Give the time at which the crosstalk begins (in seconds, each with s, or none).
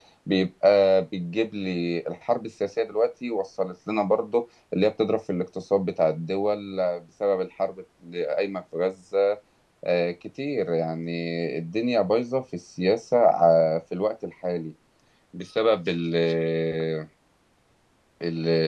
none